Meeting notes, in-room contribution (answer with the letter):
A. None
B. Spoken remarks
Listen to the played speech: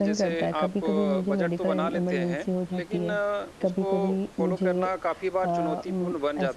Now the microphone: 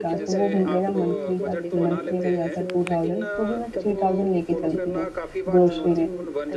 B